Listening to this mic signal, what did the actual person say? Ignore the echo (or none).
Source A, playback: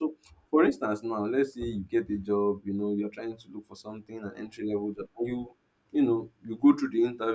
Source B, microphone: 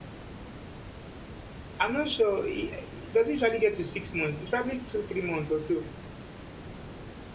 I'm not sure. It, it doesn't usually get to six months. It's probably two, three months or so.